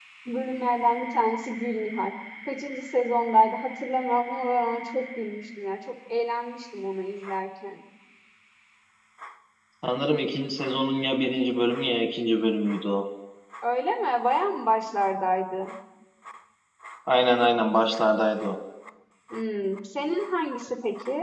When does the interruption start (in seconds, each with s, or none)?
none